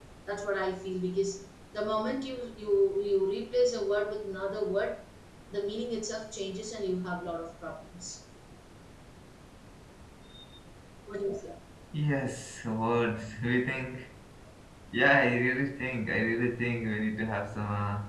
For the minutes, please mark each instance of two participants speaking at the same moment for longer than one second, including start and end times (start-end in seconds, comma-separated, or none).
none